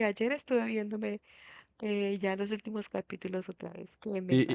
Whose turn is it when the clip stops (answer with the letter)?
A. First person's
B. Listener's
B